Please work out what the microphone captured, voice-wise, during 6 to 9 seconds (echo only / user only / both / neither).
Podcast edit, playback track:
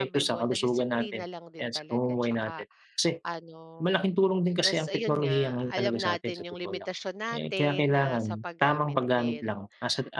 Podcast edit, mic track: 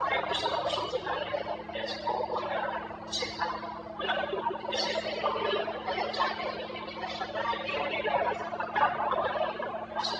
echo only